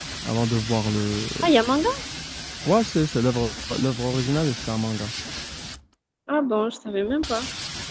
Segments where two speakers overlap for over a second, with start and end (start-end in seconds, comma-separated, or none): none